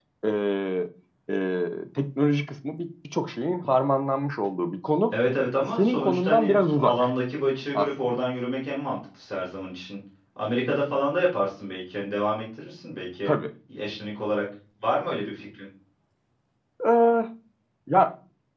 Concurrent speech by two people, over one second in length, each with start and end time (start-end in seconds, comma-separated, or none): 5.8-7.1